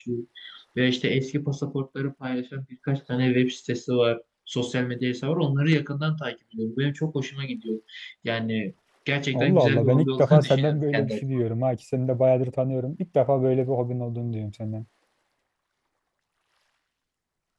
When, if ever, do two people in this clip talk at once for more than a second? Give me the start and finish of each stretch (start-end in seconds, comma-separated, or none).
9.3-11.2